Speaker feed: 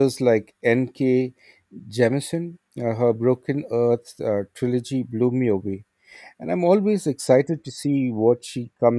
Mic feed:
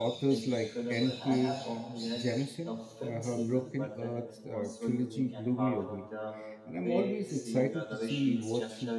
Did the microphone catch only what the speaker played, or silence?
No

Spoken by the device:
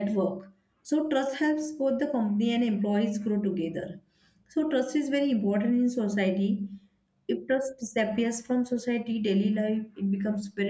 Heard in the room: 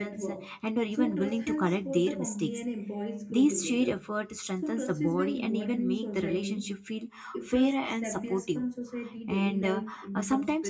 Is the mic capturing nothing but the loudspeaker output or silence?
No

